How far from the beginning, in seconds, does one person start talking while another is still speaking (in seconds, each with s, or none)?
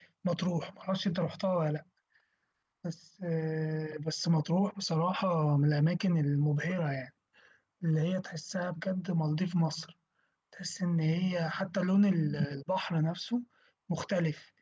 none